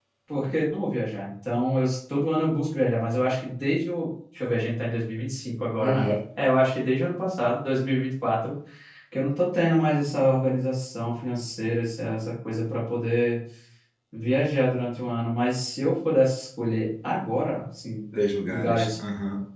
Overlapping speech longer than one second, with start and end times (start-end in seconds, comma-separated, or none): none